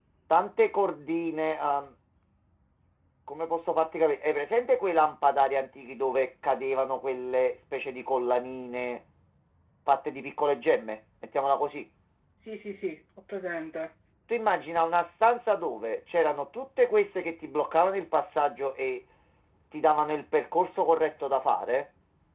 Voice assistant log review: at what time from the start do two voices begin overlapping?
none

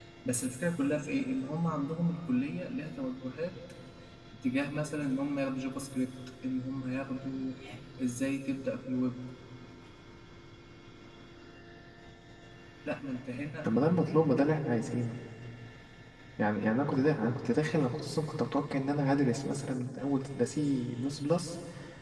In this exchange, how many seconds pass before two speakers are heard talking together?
none

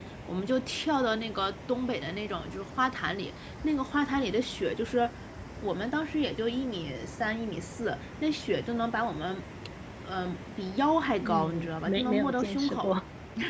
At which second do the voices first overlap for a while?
11 s

